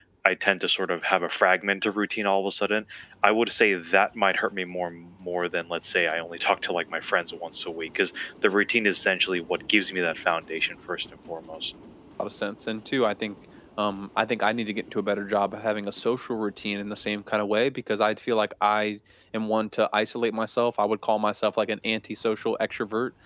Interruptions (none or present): none